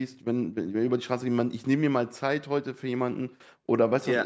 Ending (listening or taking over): listening